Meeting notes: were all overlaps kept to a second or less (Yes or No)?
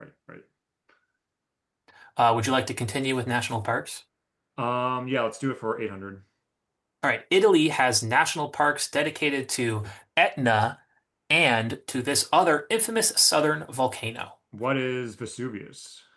Yes